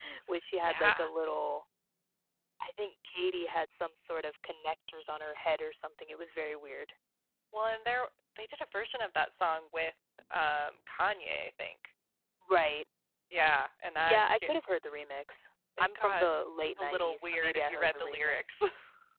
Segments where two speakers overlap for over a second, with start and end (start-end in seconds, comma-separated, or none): 16.8-18.6